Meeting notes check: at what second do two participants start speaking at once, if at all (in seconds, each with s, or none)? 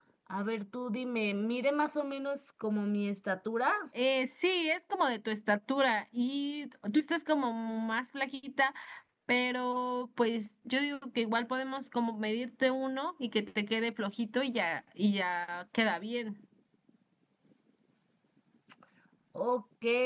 none